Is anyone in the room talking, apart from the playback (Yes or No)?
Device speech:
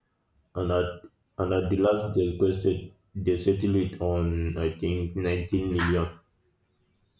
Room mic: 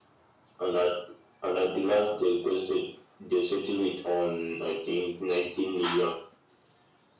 No